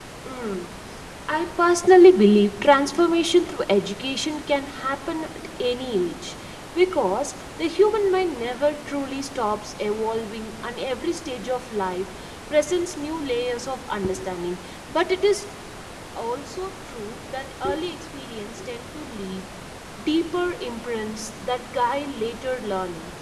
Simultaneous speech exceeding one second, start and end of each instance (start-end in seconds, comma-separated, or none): none